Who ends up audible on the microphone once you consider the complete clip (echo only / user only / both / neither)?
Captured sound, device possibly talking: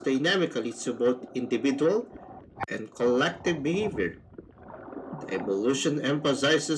echo only